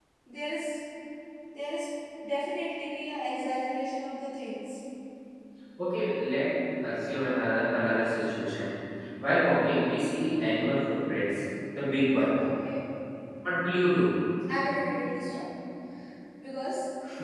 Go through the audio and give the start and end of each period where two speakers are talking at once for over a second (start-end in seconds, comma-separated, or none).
none